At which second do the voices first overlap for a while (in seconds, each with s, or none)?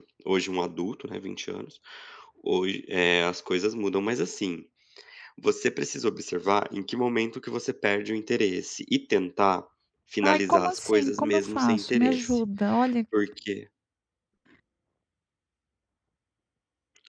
10.2 s